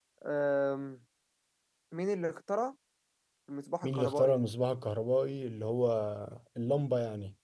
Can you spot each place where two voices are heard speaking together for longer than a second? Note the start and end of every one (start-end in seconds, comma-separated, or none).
none